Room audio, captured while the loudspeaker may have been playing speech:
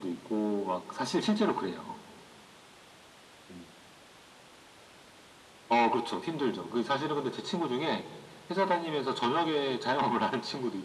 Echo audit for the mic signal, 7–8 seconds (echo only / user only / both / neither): echo only